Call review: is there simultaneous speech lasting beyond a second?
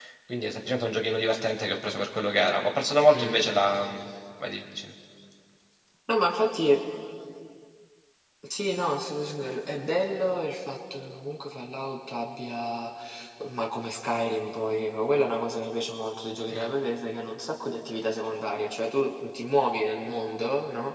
No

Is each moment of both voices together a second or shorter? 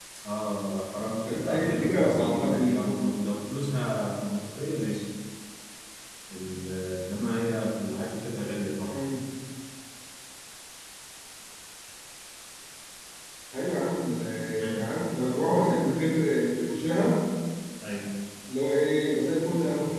No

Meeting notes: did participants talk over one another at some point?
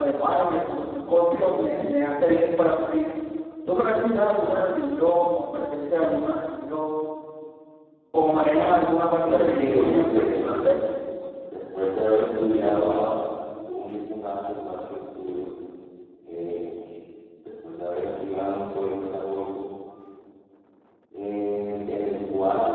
Yes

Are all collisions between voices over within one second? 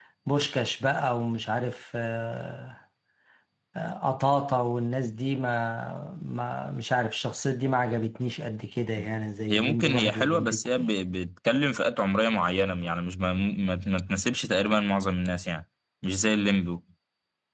No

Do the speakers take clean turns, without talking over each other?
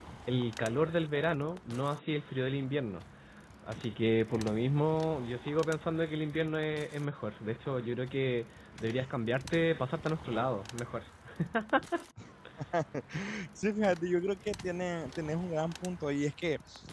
Yes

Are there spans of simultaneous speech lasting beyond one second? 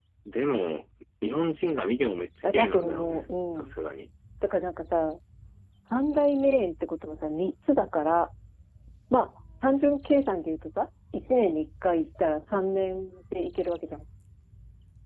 Yes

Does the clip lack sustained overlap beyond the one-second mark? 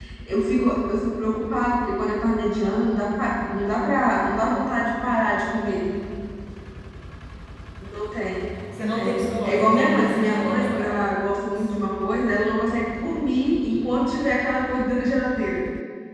No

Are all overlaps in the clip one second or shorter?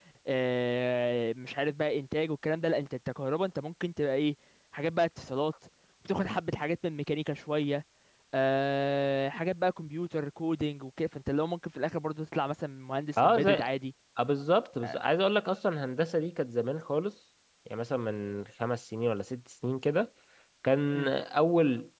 Yes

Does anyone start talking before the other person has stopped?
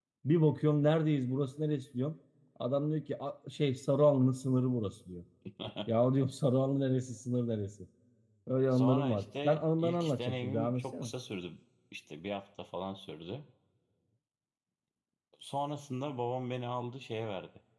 Yes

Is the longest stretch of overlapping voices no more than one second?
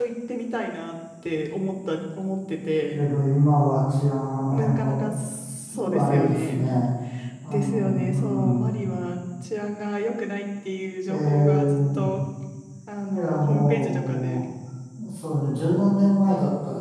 No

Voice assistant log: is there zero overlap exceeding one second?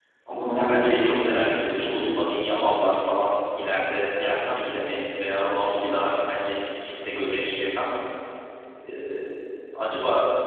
No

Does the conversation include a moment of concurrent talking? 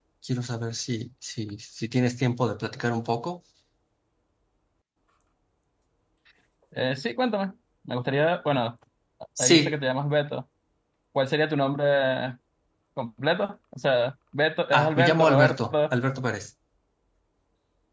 Yes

